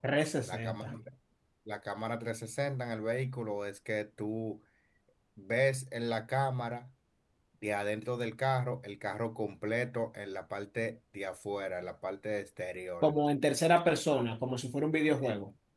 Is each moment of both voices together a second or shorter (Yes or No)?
Yes